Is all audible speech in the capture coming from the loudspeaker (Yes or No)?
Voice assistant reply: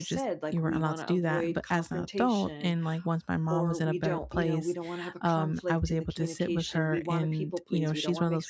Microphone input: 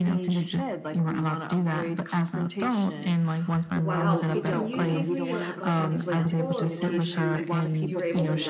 No